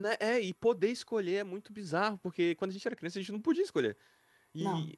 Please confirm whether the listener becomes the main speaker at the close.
No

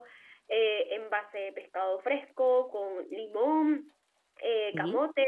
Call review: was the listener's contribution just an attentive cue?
Yes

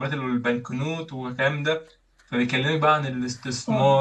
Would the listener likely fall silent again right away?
No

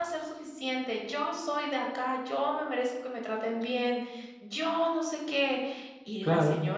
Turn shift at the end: No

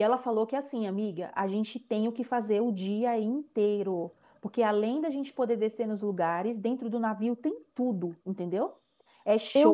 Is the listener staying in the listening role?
Yes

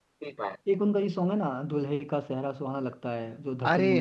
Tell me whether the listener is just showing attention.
No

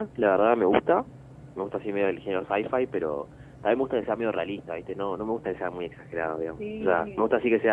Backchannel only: Yes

